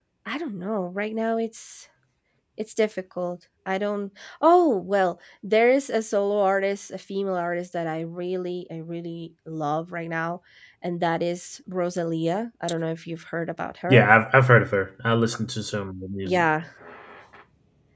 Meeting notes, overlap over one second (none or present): none